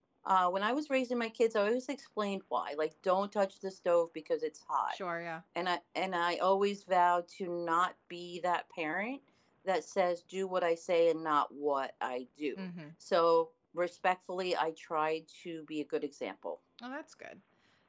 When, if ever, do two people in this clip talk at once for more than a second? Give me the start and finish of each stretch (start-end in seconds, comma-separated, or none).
none